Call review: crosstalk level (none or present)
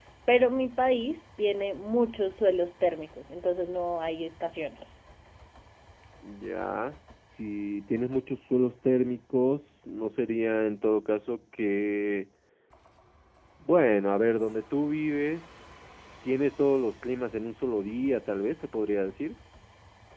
none